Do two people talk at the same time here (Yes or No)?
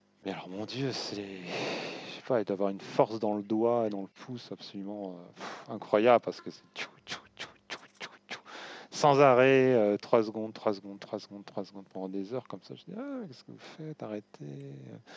No